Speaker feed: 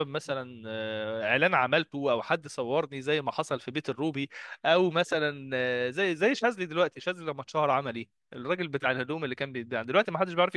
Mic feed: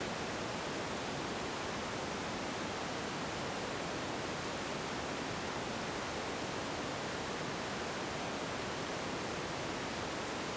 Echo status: none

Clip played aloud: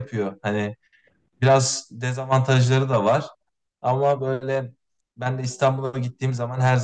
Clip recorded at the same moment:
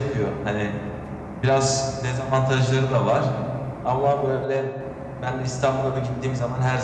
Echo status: present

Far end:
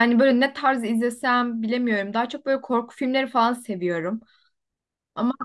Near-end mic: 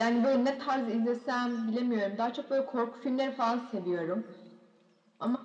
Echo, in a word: present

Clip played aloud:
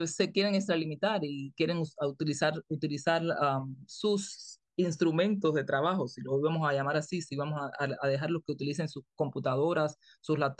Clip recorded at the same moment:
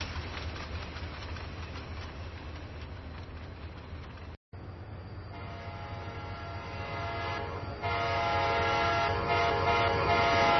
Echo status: none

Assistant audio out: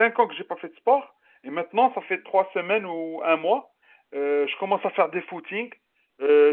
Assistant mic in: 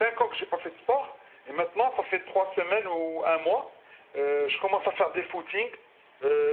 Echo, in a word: present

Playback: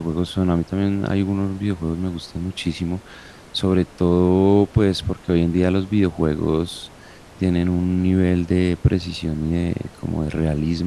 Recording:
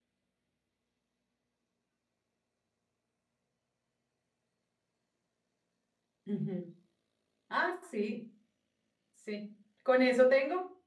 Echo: none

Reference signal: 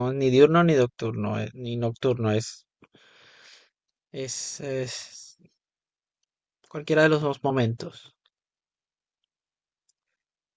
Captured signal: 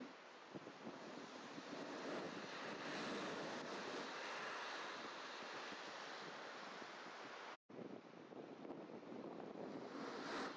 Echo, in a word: none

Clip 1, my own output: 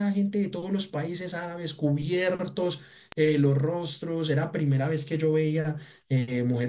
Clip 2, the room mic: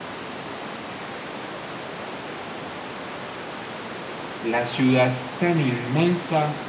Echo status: none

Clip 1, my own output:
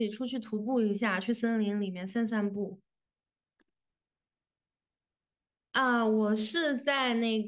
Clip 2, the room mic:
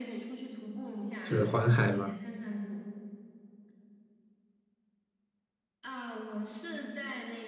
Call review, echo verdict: present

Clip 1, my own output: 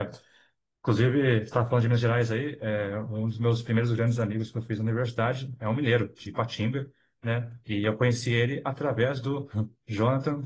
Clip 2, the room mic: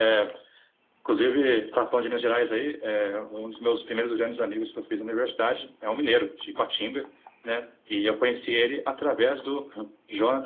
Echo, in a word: present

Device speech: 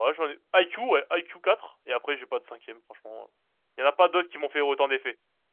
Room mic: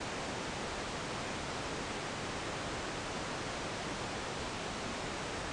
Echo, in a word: none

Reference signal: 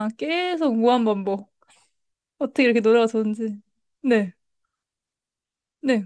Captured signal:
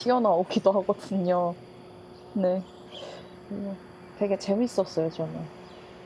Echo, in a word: none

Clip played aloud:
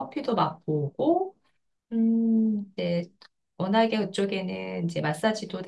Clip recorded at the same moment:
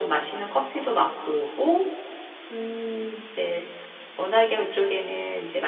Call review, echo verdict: present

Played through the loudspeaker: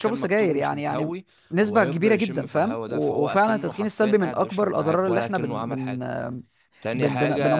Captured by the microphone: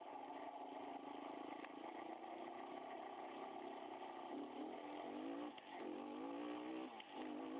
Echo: none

